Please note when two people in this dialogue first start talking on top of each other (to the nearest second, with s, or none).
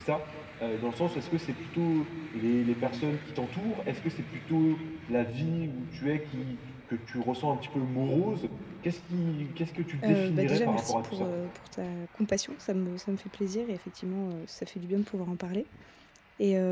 10 s